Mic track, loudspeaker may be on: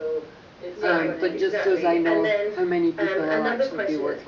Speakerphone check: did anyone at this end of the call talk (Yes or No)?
Yes